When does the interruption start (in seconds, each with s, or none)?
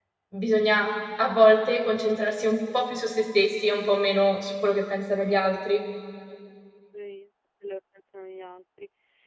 none